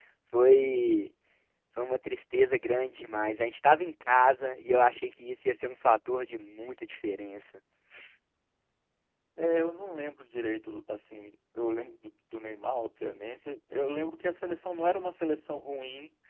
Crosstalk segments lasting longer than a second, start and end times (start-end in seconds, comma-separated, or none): none